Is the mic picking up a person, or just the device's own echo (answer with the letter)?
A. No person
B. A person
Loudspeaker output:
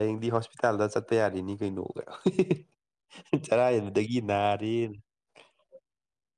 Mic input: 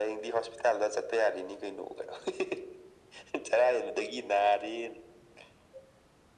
A